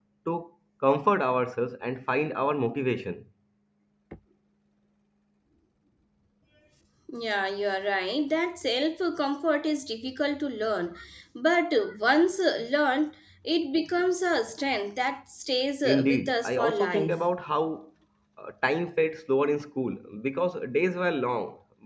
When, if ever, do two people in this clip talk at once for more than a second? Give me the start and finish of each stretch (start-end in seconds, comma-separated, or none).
15.8-17.1